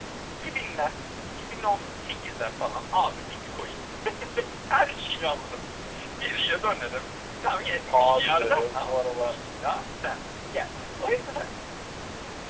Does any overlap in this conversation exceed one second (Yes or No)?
Yes